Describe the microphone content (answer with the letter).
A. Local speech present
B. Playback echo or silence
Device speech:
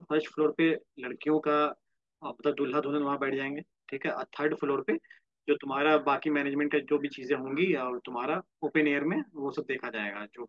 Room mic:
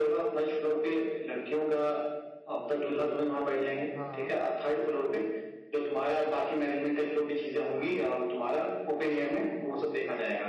A